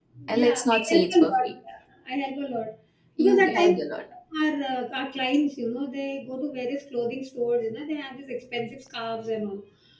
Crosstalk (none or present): present